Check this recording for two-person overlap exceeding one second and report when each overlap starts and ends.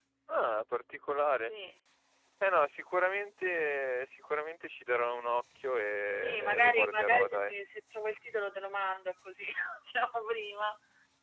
6.2-7.5

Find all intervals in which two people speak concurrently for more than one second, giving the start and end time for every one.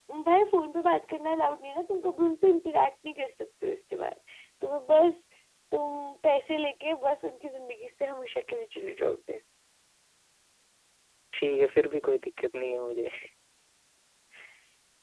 none

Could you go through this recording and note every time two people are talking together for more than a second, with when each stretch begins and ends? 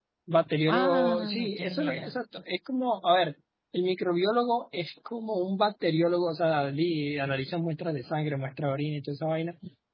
0.7-2.2

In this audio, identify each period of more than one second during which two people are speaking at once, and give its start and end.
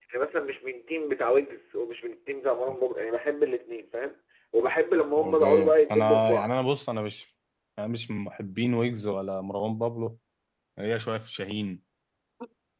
5.2-6.5

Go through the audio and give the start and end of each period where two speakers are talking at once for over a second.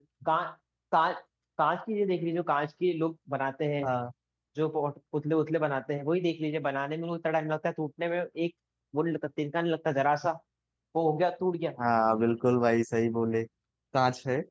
none

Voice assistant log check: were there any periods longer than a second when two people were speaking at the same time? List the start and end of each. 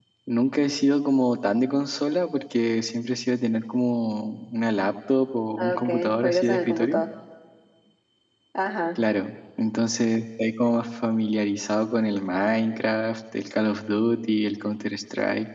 5.6-7.0

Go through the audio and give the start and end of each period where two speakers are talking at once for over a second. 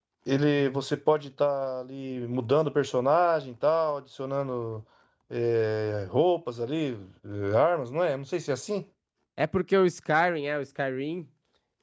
none

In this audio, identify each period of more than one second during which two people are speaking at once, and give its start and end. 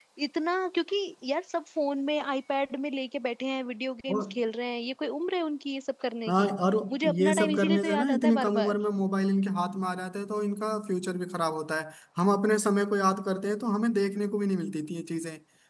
6.9-8.8

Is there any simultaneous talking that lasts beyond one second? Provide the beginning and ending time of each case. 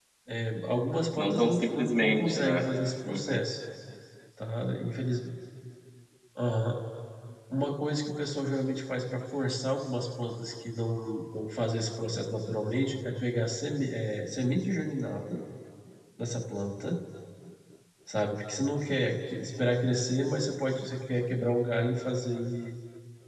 1.2-2.6

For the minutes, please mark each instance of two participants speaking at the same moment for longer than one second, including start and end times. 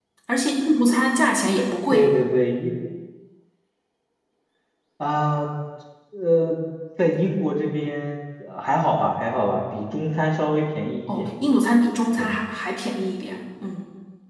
none

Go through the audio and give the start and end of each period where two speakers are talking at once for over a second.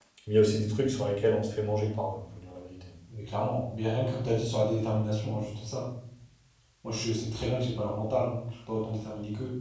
none

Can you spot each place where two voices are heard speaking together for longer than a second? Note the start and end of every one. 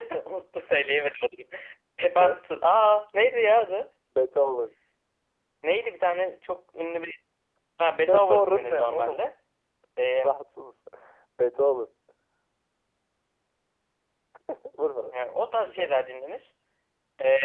8.1-9.3

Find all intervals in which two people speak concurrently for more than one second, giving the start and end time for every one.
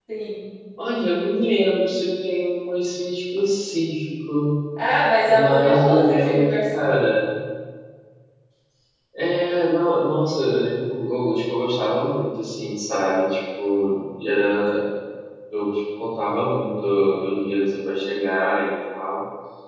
5.3-6.9

